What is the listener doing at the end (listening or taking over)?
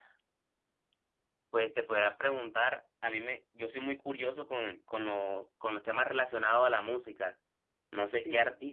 listening